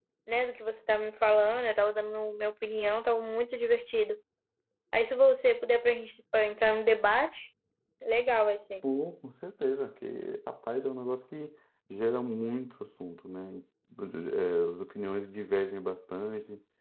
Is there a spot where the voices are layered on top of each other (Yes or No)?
No